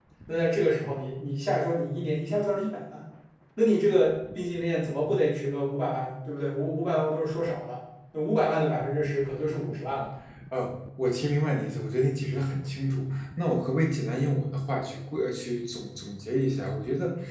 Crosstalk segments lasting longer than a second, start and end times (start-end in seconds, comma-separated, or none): none